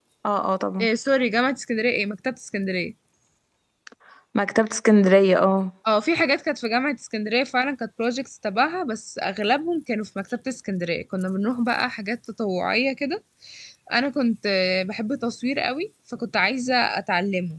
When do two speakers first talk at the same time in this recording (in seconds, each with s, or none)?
none